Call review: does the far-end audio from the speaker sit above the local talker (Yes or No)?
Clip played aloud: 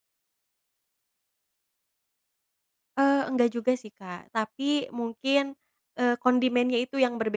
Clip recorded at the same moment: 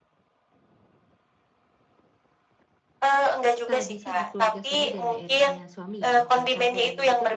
Yes